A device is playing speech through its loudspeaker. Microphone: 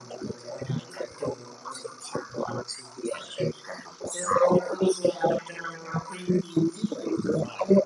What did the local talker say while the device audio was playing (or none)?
none